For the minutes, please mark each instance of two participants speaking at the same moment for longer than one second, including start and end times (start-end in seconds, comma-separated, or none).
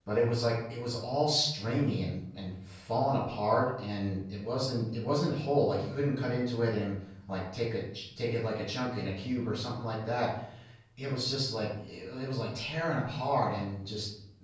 none